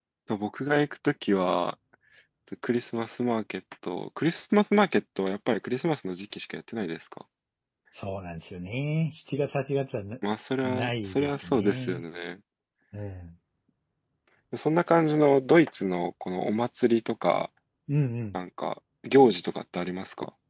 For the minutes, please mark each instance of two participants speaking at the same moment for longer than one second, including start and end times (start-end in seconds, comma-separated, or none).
10.6-12.0